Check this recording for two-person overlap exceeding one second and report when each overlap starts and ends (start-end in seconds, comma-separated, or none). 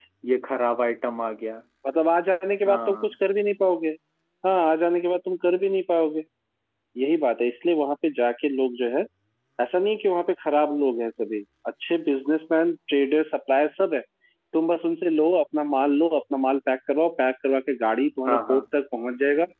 none